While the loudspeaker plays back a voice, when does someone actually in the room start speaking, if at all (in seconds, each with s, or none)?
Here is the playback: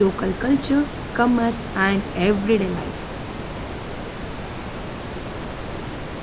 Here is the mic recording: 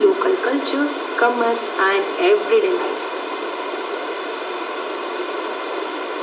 none